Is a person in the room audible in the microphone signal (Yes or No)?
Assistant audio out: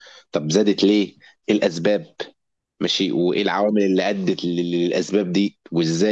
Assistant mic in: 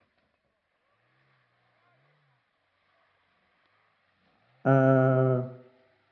Yes